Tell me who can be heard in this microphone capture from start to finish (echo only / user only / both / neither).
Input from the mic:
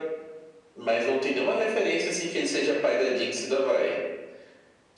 echo only